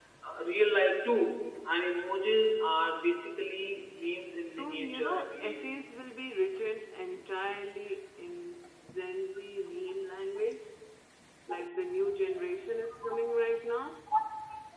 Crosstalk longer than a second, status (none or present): present